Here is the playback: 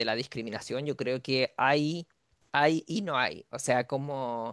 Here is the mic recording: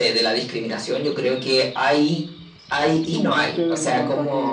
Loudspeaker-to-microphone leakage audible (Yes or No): Yes